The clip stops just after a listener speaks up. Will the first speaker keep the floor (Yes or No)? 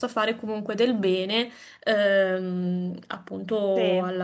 Yes